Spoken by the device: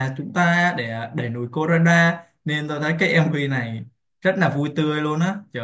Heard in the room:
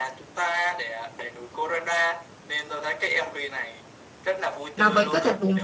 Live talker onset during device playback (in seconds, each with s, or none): 4.7 s